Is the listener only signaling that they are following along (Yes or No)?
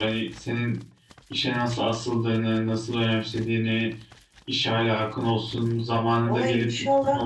No